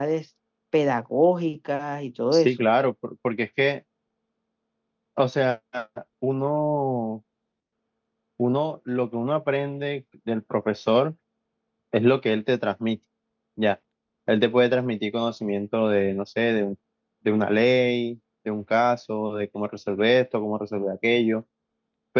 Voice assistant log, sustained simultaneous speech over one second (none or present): none